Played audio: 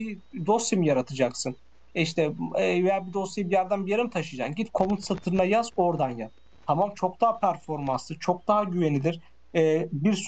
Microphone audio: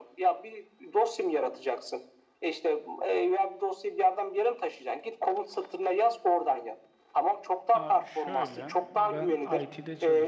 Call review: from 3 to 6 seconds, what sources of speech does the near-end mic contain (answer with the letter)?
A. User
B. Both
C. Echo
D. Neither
C